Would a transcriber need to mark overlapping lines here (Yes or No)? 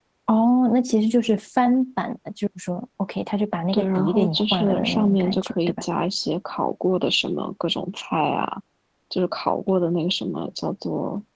Yes